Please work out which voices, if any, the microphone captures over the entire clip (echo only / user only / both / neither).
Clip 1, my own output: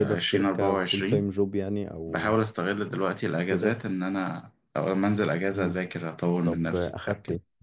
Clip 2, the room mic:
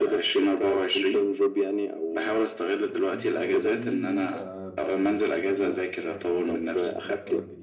both